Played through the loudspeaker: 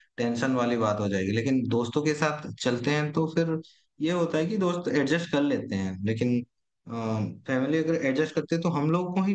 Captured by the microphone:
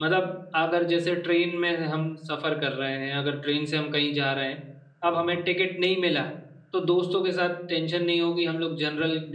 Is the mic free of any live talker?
No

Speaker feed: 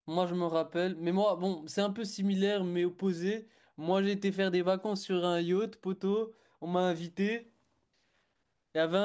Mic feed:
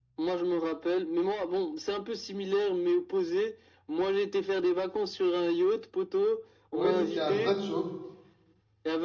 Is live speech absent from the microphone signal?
No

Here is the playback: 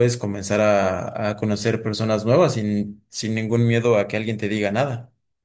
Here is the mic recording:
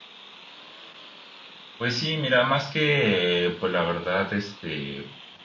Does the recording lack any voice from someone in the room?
No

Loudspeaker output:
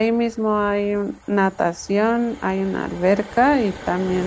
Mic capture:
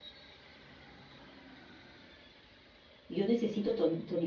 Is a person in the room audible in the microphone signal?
Yes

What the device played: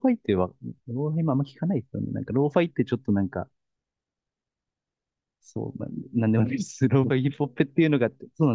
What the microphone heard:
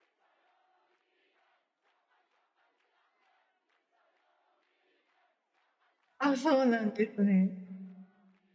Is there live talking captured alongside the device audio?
Yes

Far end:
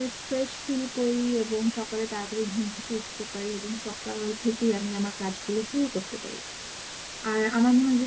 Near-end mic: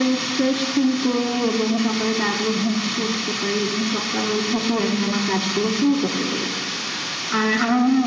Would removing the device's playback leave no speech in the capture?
Yes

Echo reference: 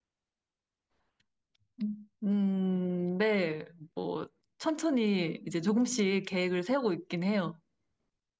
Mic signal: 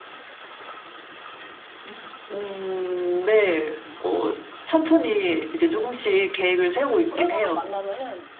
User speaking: Yes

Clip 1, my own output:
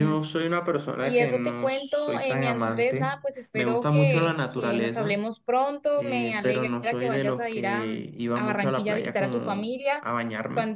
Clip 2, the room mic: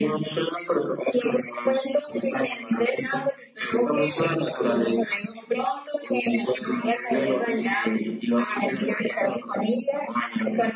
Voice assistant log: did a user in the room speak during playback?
No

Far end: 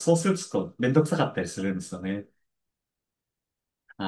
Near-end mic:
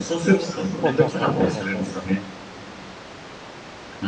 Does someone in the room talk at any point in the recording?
Yes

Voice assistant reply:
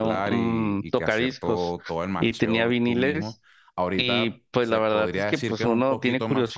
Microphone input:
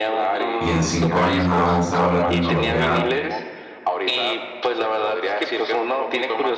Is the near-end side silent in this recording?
No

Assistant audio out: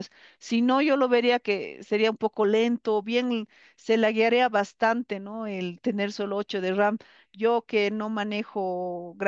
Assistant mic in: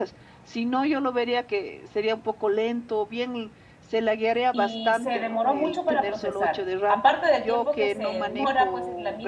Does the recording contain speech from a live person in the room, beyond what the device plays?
Yes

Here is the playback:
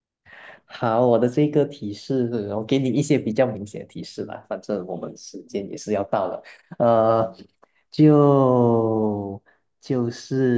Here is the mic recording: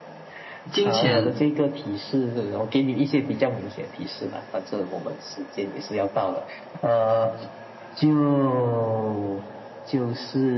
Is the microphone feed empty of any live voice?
No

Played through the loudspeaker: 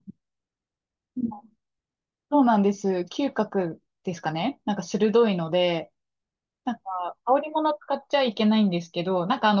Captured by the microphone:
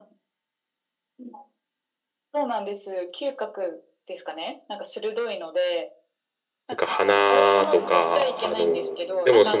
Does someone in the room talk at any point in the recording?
Yes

